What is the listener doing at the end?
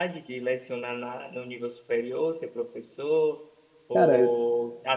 listening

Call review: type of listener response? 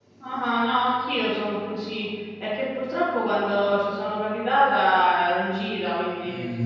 taking over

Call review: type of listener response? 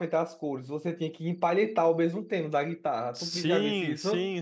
taking over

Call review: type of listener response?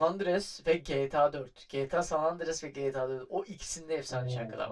taking over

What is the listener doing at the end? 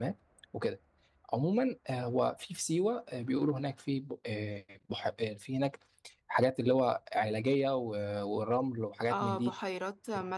taking over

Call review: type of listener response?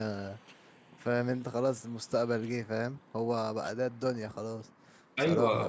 taking over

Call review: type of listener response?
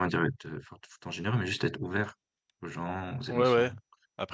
taking over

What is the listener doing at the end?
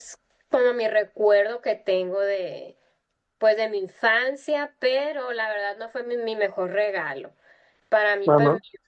listening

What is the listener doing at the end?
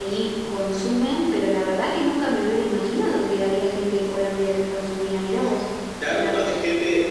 taking over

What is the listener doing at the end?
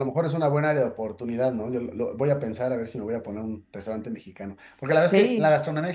listening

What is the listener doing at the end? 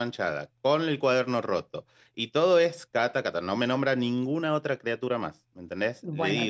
taking over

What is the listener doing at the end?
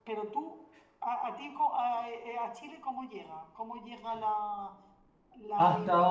taking over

